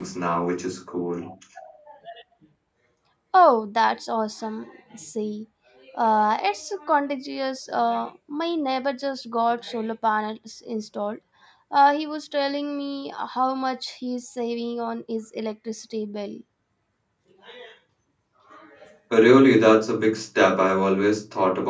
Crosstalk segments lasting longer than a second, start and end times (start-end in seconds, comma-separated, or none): none